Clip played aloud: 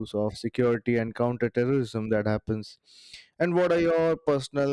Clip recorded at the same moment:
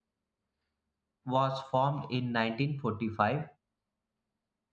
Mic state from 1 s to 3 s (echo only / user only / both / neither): user only